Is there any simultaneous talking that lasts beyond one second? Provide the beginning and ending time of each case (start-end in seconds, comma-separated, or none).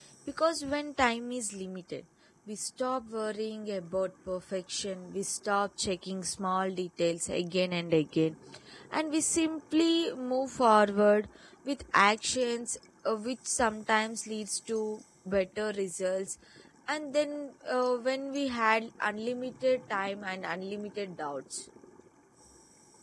none